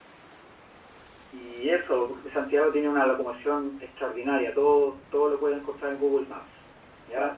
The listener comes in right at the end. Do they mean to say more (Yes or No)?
No